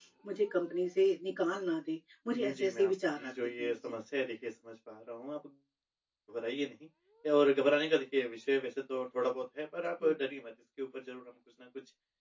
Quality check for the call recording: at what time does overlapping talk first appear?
2.3 s

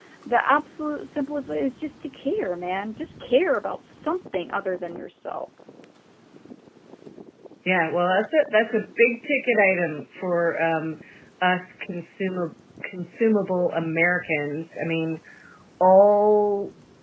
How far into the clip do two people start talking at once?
none

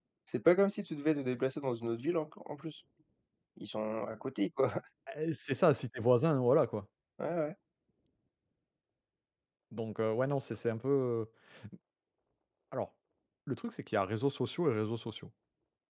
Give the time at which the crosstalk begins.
none

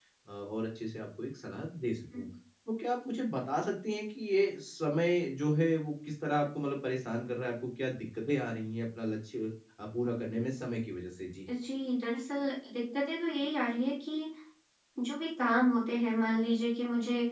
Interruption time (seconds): none

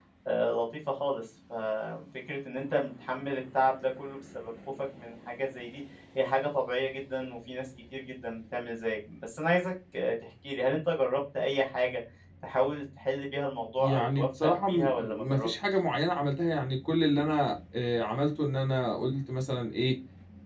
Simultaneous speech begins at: 13.8 s

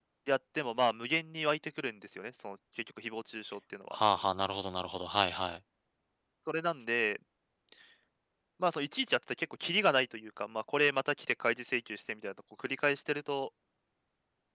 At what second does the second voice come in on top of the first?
none

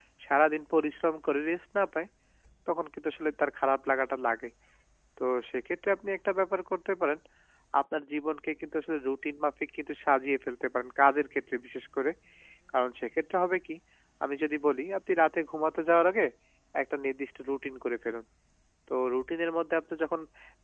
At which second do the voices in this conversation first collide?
none

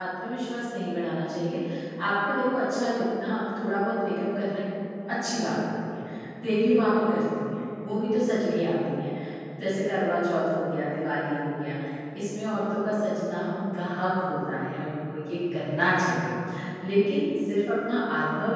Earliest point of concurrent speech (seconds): none

